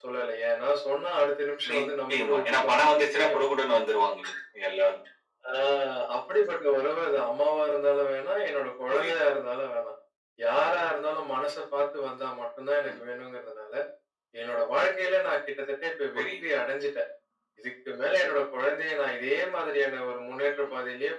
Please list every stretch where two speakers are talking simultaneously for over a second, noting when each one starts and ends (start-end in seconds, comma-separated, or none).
1.7-3.4